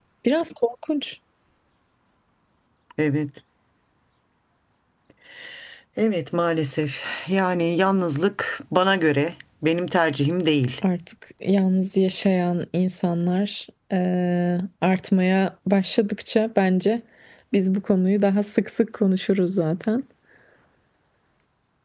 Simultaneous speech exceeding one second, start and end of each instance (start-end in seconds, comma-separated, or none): none